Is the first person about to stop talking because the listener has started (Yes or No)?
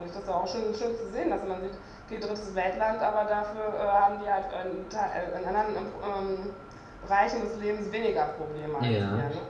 Yes